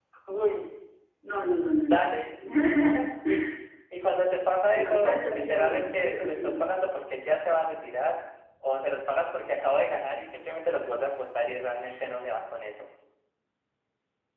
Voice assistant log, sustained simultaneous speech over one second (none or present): present